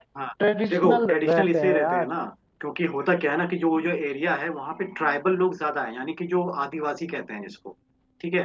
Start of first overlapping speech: 0.7 s

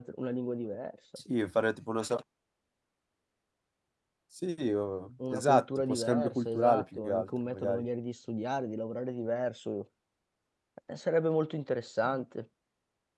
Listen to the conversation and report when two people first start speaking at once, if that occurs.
5.2 s

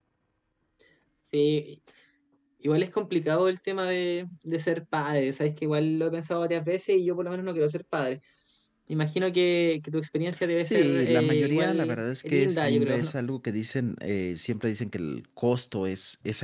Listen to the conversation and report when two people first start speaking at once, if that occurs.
10.6 s

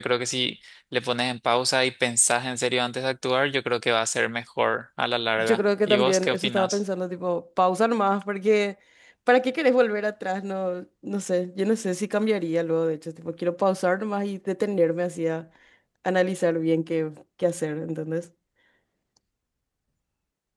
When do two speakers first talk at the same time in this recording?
5.4 s

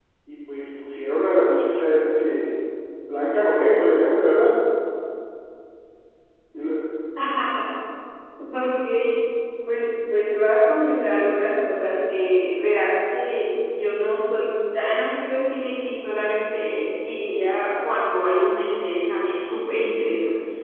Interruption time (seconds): none

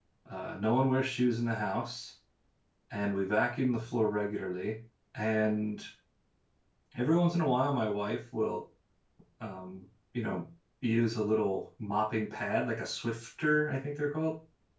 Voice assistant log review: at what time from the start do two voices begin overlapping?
none

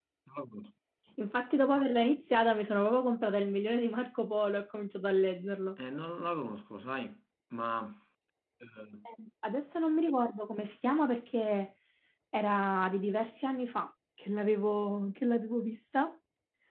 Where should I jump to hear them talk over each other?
none

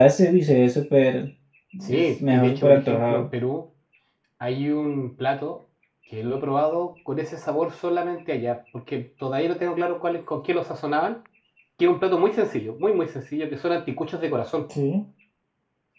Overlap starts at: 1.9 s

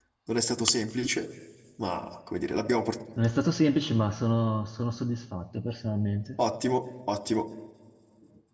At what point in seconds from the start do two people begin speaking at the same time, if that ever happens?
none

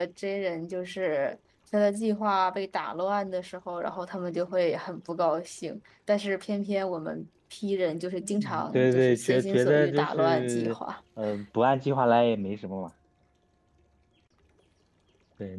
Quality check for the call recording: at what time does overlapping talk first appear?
8.2 s

